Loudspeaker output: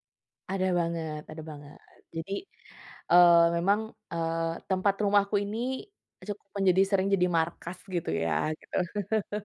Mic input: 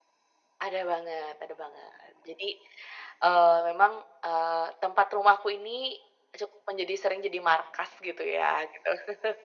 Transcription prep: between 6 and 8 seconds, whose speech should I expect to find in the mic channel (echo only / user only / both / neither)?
echo only